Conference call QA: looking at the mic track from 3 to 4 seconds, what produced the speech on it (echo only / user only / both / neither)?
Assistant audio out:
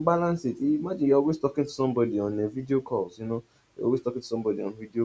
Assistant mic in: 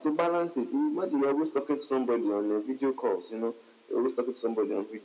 echo only